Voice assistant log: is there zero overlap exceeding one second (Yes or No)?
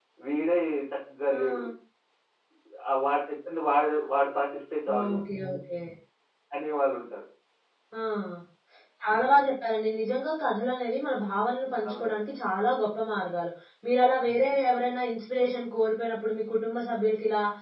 Yes